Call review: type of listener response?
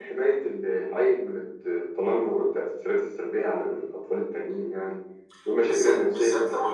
taking over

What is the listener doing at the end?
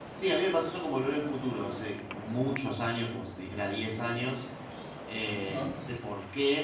listening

